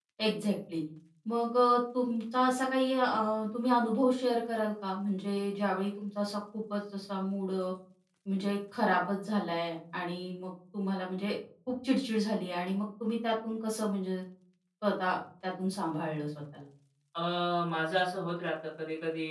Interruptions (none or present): none